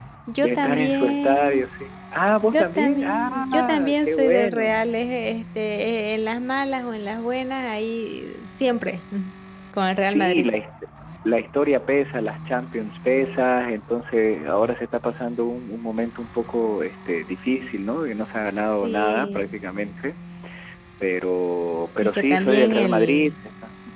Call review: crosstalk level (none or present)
present